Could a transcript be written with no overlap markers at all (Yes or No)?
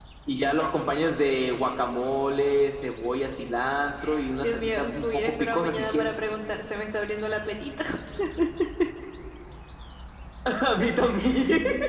No